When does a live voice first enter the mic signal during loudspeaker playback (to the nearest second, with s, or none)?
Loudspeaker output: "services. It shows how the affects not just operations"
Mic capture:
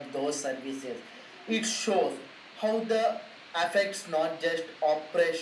none